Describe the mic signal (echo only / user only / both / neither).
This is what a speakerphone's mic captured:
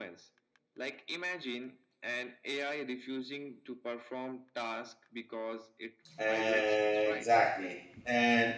both